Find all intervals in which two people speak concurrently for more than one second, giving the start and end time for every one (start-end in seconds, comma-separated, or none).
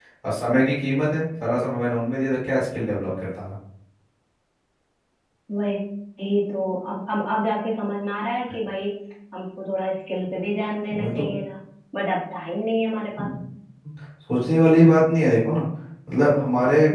none